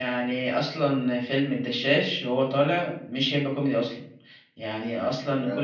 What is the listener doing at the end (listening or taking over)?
listening